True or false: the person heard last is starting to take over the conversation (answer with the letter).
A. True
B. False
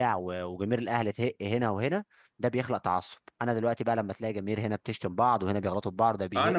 A